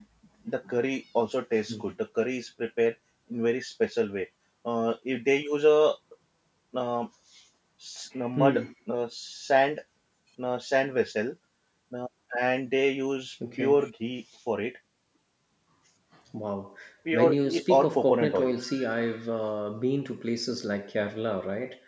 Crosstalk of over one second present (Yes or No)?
Yes